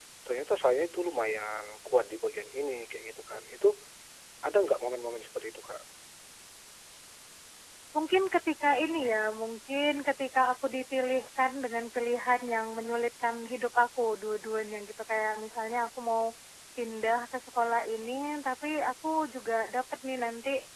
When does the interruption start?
none

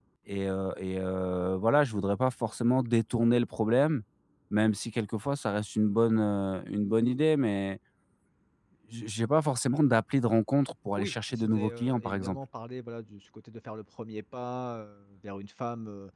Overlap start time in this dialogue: 11 s

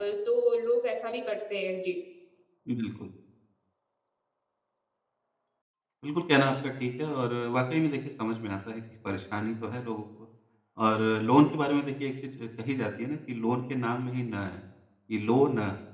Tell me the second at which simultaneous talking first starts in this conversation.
none

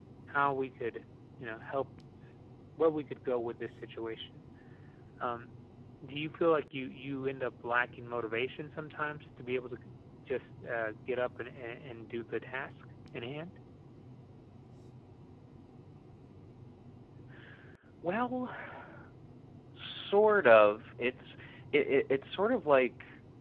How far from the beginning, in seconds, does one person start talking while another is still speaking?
none

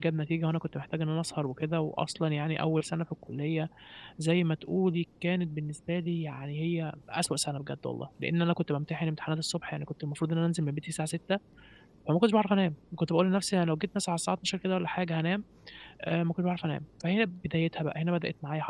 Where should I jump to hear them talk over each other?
none

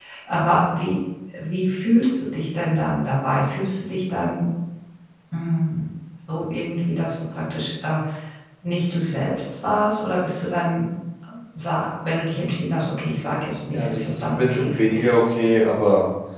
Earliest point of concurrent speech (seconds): 14 s

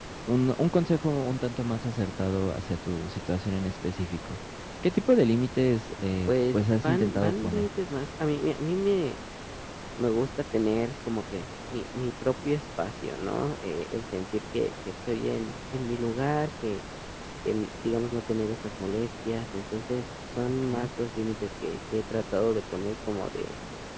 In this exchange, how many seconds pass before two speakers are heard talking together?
6 s

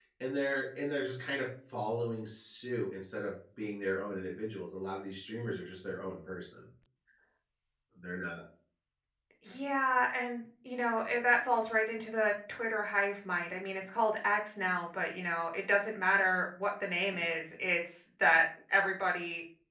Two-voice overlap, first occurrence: none

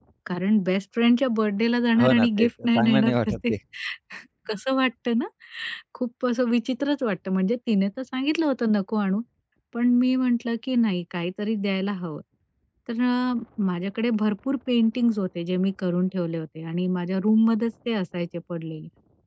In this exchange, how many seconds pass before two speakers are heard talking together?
2 s

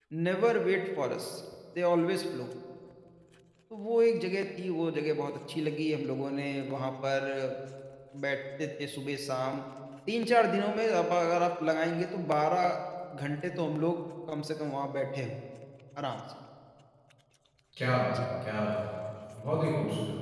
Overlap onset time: none

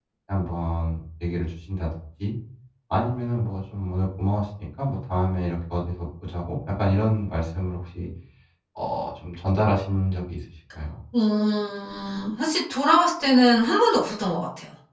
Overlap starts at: none

